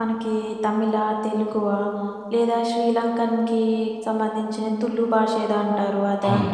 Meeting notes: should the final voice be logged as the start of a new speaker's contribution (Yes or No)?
Yes